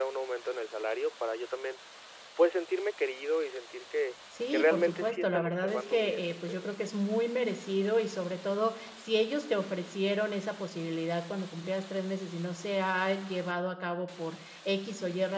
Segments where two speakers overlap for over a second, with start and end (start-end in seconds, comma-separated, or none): 4.5-6.7